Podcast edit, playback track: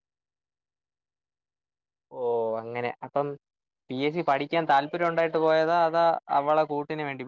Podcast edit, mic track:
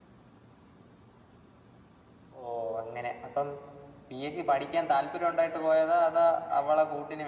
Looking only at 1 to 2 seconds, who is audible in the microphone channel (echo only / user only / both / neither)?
neither